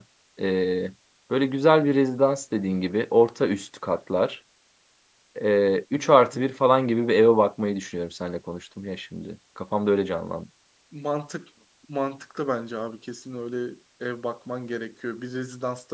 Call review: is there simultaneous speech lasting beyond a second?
No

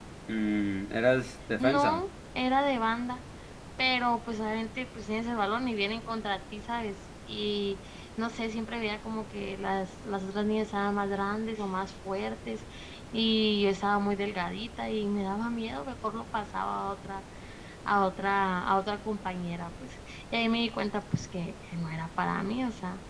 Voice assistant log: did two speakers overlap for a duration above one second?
No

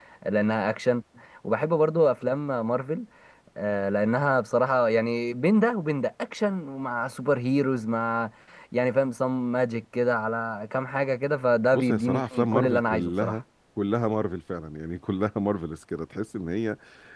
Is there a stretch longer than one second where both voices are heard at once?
Yes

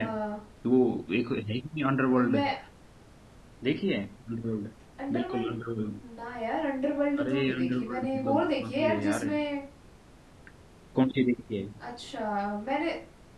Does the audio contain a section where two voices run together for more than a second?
Yes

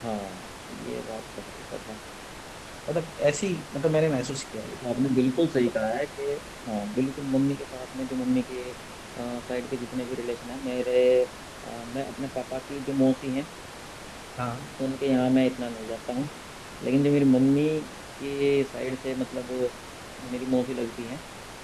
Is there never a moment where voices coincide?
Yes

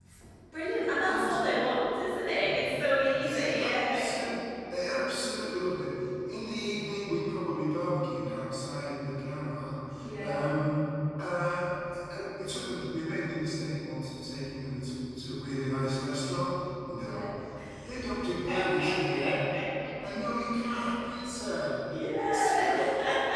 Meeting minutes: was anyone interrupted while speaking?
Yes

